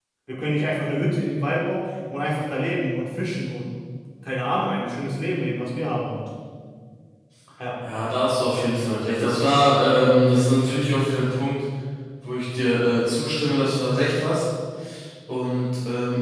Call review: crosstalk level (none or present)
none